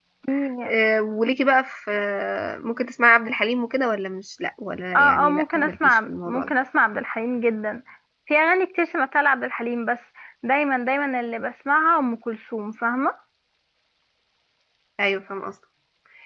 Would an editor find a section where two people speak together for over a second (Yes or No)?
Yes